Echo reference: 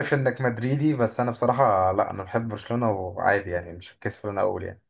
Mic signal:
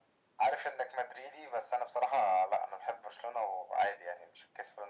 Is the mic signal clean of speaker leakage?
No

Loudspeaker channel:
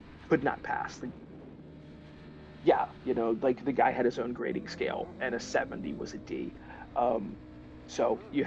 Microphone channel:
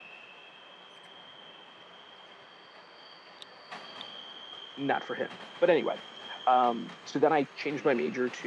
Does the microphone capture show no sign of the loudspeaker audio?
Yes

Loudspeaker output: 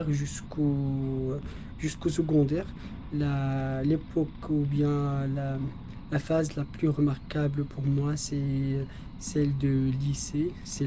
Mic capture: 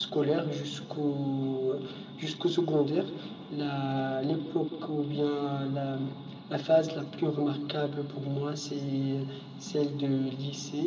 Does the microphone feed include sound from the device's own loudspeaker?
Yes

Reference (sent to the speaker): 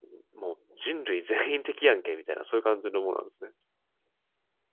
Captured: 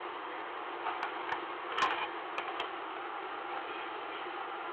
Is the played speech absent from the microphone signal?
Yes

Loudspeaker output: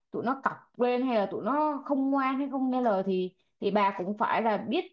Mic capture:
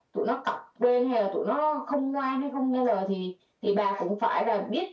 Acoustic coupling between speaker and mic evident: Yes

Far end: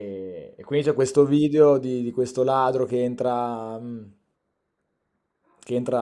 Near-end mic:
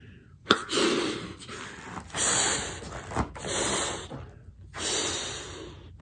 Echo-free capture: Yes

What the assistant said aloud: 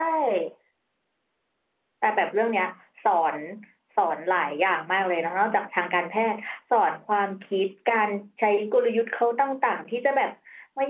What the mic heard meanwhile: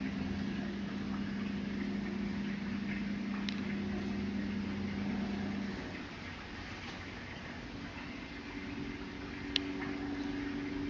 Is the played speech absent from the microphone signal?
Yes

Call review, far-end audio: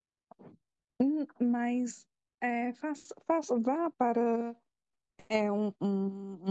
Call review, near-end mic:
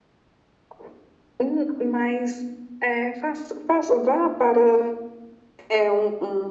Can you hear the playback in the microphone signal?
Yes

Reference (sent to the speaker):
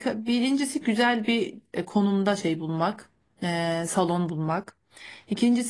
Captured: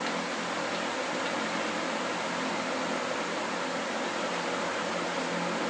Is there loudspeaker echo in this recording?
No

